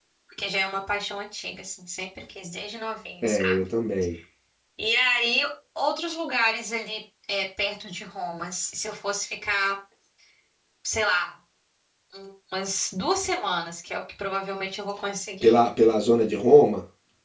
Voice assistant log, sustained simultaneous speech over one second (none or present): none